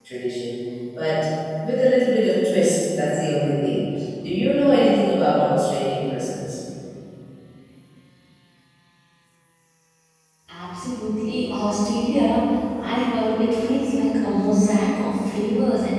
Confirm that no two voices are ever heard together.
Yes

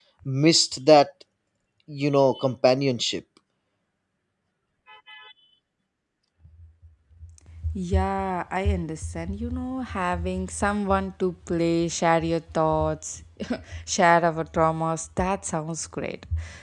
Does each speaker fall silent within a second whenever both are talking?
Yes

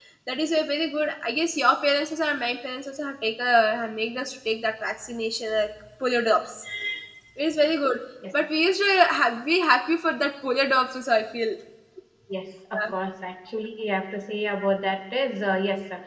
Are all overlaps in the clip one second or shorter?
Yes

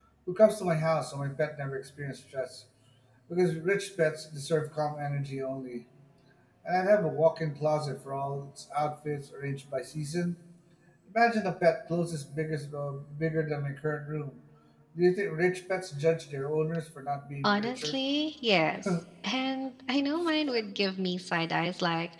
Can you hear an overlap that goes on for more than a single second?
No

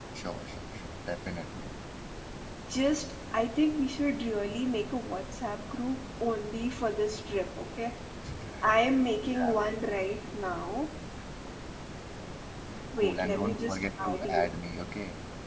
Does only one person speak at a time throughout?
No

